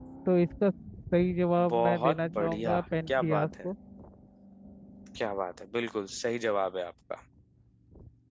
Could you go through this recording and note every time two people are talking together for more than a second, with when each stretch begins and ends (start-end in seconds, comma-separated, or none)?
1.7-3.6